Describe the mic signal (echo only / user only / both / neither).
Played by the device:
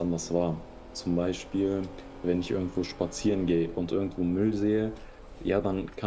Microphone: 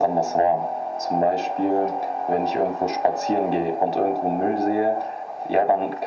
echo only